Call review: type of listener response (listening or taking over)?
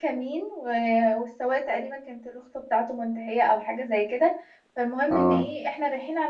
listening